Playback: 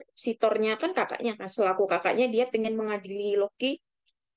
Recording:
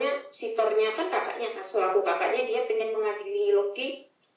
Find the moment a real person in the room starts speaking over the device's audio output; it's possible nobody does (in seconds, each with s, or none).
none